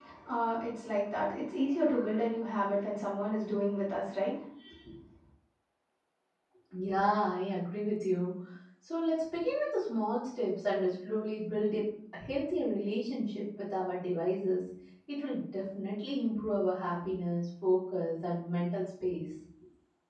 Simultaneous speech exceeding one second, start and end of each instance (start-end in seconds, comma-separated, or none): none